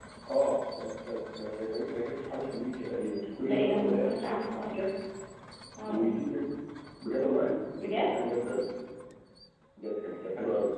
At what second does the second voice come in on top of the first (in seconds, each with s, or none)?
3.4 s